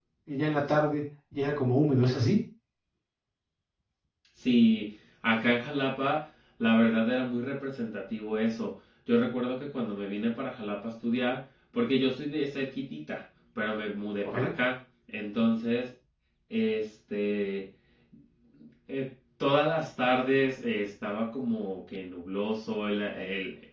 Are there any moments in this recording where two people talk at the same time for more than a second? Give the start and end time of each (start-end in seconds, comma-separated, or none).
none